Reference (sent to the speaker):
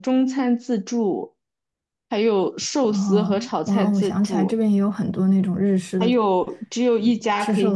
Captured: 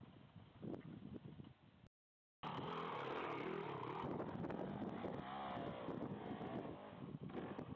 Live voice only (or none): none